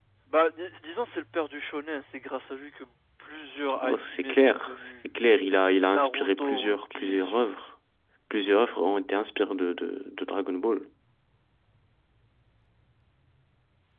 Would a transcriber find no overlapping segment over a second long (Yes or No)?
No